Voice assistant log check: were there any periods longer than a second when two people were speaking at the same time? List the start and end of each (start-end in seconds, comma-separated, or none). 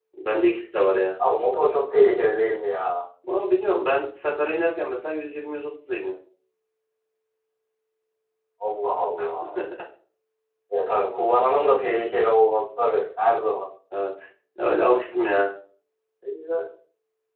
none